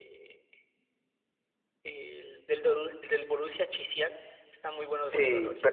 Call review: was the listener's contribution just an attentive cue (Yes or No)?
No